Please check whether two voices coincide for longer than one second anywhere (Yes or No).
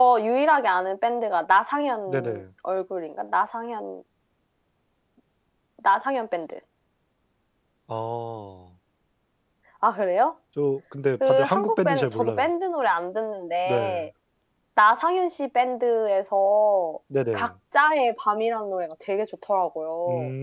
Yes